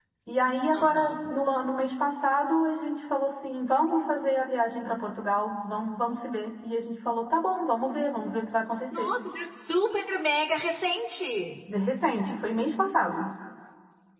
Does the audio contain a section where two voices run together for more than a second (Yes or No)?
No